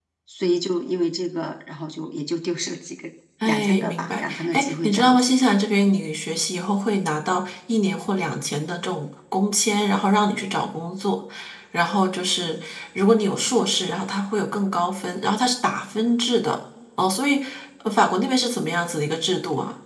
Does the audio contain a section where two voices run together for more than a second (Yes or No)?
Yes